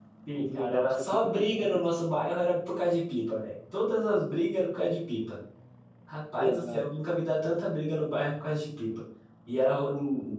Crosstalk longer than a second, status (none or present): present